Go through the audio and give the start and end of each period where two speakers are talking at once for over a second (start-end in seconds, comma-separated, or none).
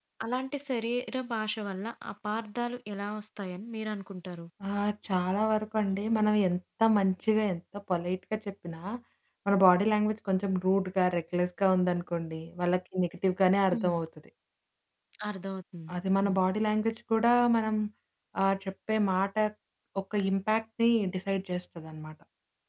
none